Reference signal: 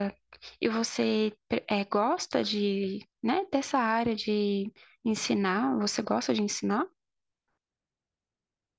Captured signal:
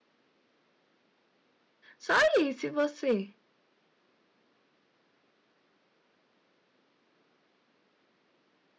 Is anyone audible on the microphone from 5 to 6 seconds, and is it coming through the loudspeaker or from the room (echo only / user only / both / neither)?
neither